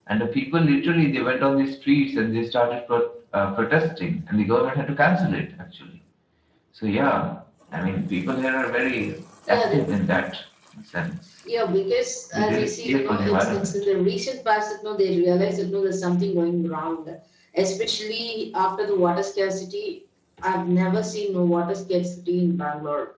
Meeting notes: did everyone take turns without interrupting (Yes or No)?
No